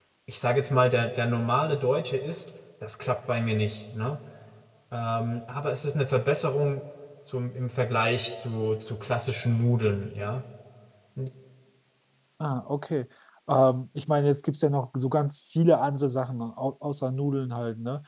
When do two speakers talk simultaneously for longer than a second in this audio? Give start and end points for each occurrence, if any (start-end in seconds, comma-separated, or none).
none